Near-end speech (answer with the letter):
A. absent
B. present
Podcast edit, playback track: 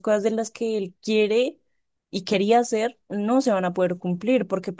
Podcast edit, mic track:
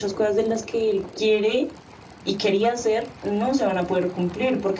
A